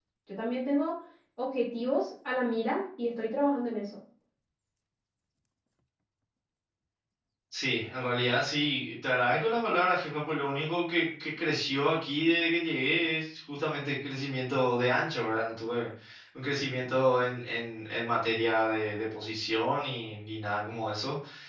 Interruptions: none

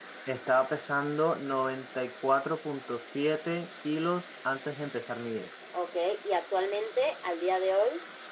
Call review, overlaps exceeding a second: none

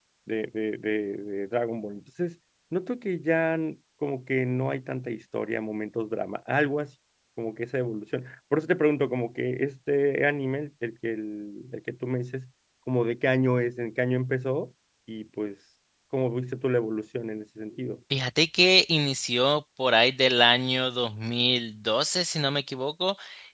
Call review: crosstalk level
none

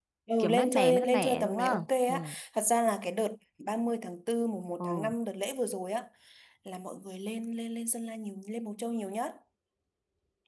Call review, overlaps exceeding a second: present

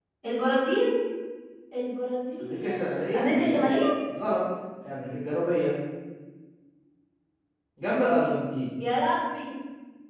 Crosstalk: present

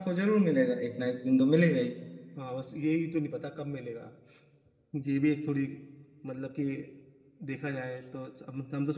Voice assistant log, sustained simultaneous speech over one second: none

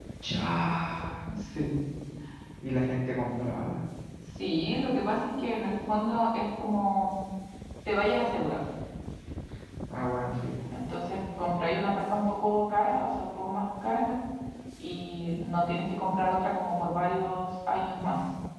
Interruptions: none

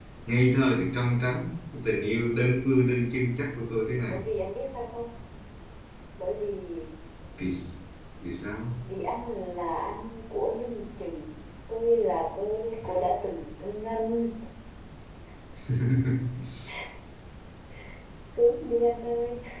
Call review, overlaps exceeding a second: none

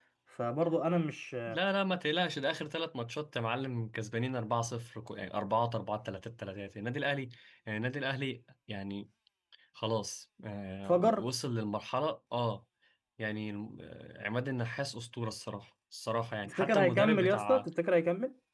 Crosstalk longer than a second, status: present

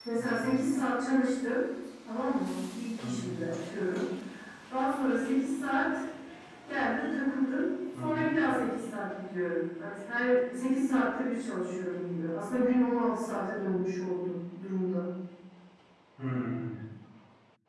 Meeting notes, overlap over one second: none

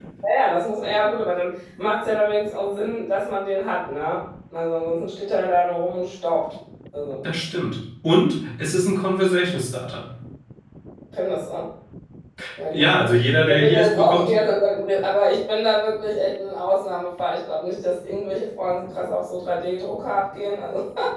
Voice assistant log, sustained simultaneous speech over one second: present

